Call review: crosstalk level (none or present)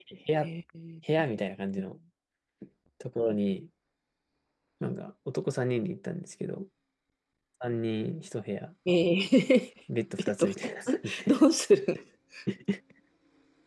present